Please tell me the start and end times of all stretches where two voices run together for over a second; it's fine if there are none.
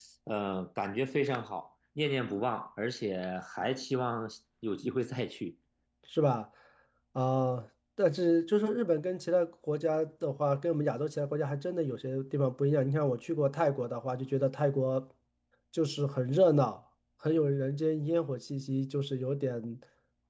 none

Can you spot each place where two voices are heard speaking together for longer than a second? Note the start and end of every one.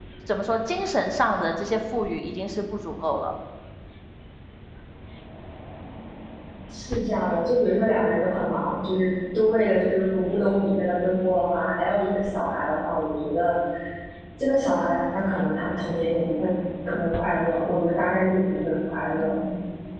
none

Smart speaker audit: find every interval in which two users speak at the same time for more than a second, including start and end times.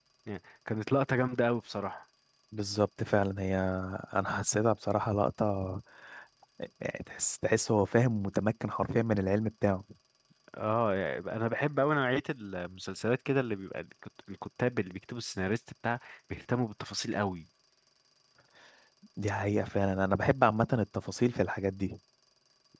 none

